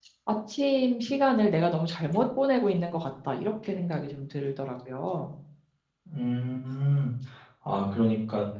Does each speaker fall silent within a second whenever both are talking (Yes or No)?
Yes